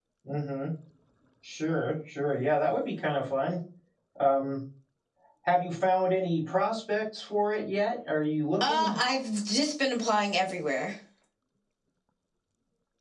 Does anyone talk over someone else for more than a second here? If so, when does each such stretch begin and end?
none

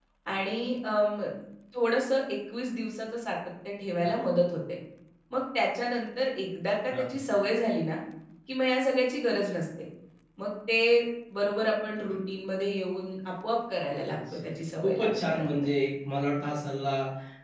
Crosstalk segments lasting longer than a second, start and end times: 14.3-15.5

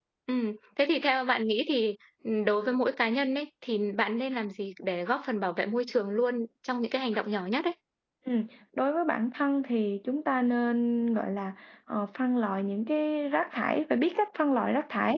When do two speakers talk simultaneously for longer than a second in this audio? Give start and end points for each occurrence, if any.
none

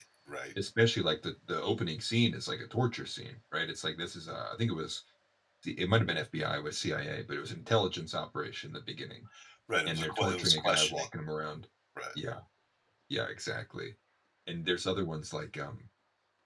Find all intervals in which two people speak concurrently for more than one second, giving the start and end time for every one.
9.8-11.1

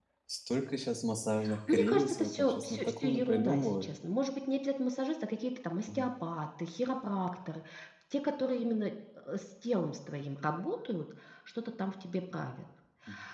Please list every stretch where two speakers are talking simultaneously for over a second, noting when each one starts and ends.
1.7-3.9

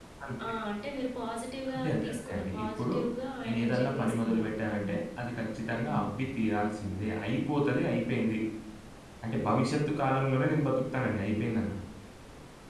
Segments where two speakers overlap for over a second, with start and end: 1.7-2.9, 3.4-4.8

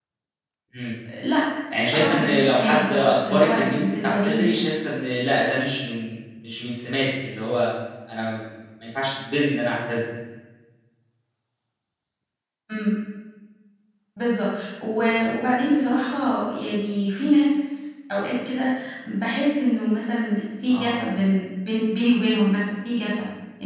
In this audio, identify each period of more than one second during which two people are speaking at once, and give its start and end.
1.9-4.5

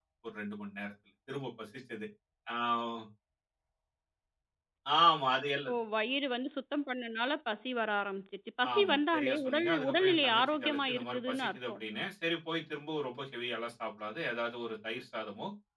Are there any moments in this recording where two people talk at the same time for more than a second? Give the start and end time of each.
8.7-11.8

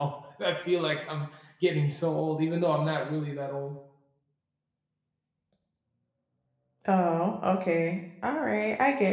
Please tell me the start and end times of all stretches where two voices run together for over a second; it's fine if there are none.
none

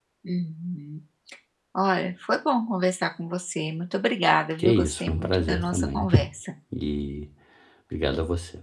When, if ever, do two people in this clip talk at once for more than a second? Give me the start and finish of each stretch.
4.6-6.1

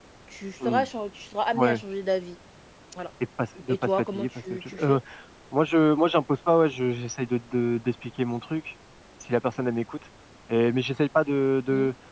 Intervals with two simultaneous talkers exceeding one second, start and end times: 3.7-5.0

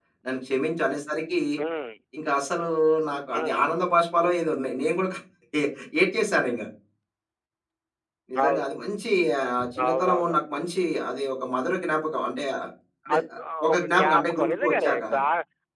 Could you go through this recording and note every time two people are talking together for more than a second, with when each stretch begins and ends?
13.7-15.0

